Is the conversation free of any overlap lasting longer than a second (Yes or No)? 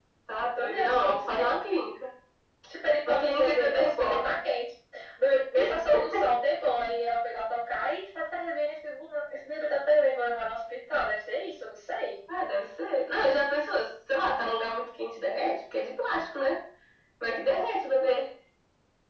No